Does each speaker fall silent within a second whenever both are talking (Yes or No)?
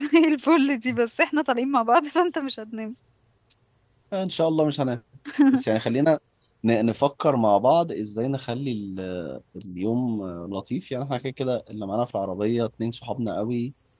Yes